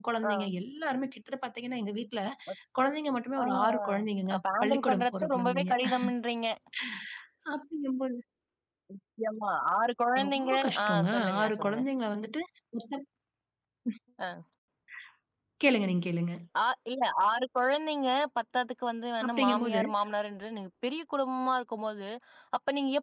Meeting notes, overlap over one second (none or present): present